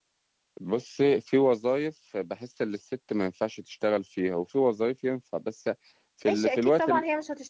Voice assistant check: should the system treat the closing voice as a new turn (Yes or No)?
Yes